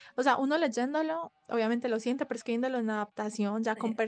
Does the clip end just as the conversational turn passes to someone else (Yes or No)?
No